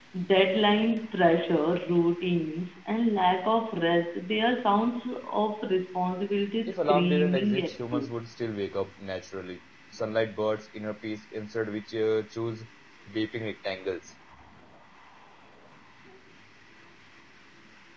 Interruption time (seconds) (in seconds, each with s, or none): 6.7 s